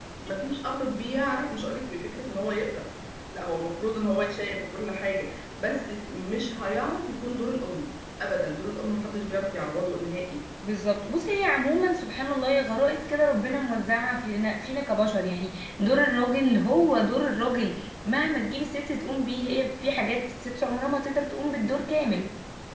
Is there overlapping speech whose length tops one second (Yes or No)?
No